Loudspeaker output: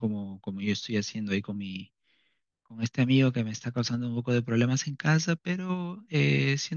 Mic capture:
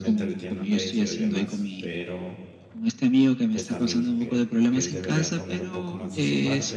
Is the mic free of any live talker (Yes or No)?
No